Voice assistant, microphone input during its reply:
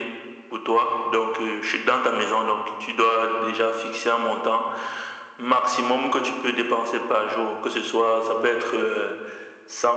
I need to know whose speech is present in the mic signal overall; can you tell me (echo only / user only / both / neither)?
echo only